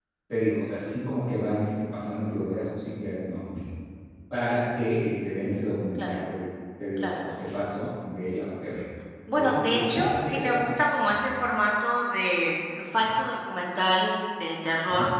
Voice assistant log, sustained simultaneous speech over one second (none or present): present